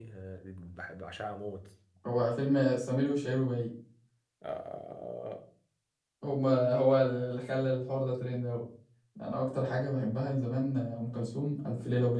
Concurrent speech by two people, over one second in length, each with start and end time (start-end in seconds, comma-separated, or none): none